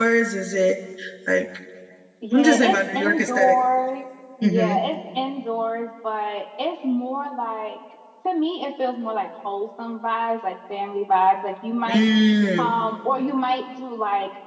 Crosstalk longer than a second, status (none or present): present